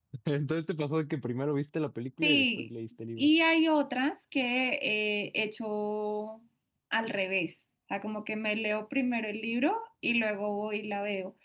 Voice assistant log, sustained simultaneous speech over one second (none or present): none